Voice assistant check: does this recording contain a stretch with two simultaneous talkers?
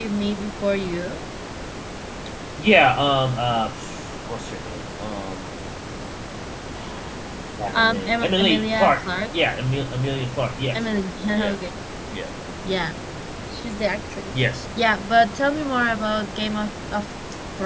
Yes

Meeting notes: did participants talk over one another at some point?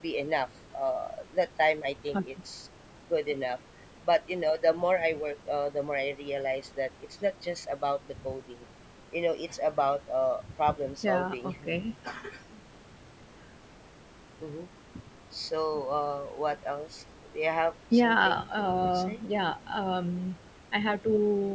Yes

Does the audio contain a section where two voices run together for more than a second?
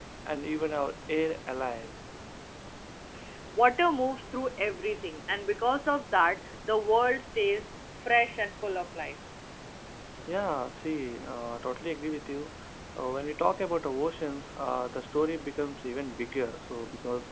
No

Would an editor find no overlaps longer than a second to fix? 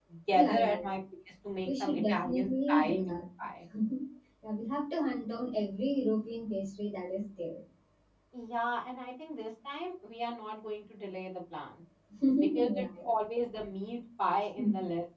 No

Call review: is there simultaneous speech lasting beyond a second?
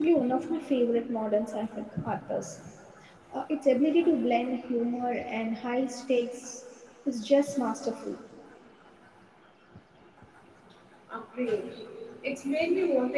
No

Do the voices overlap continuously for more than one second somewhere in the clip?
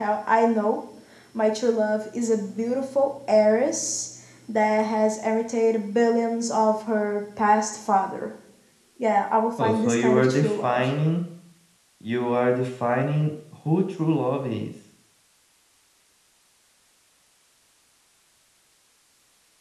Yes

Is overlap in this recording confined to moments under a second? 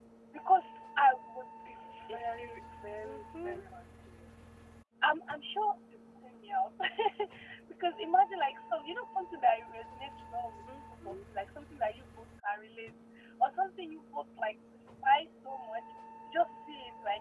No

